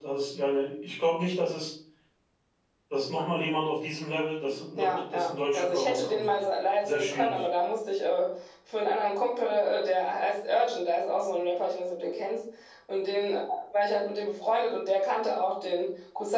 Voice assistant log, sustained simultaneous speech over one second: present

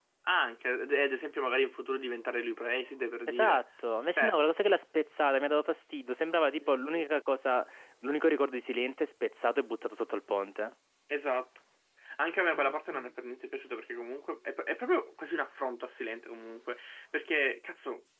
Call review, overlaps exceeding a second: none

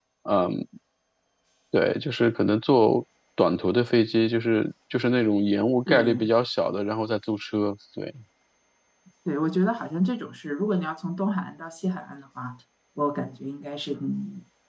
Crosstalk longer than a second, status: none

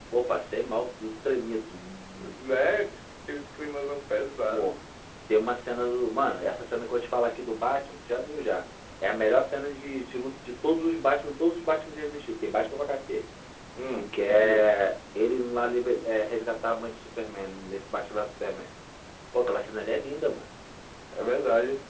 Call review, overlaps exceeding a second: none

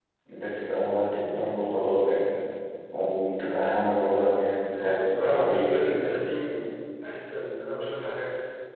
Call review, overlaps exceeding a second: present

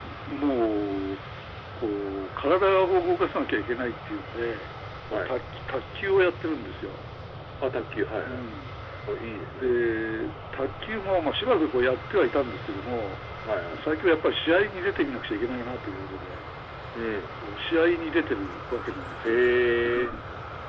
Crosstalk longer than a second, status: none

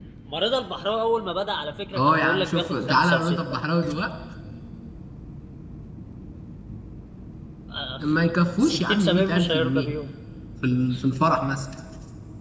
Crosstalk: present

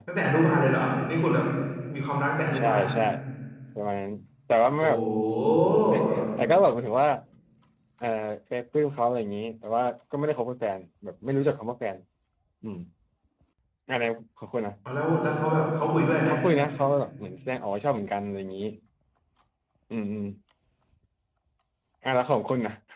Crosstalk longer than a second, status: none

